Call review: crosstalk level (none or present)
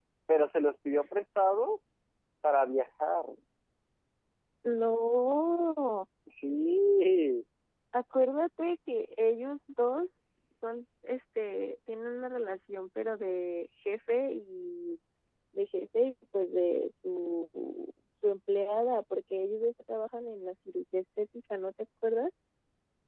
none